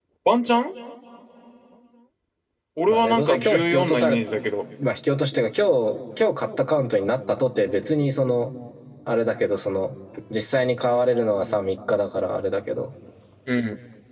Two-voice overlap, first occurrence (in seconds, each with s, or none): 2.9 s